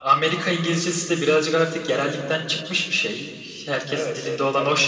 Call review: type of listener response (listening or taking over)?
taking over